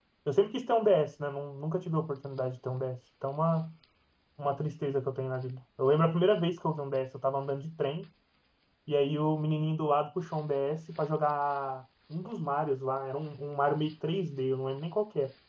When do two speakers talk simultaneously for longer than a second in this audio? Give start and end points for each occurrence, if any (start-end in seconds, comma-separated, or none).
none